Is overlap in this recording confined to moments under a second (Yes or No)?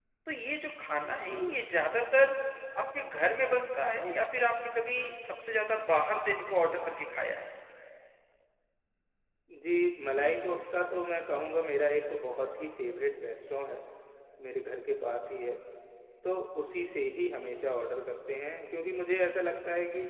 Yes